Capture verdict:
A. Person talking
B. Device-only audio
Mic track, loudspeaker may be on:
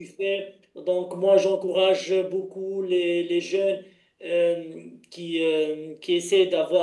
B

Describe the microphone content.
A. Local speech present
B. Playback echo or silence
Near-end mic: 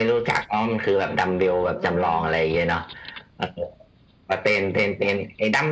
A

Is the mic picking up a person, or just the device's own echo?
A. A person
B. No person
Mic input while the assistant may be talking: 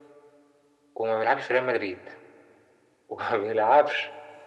B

